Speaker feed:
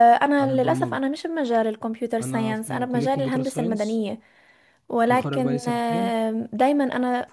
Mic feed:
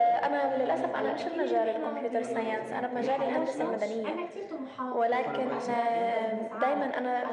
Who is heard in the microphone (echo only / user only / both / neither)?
both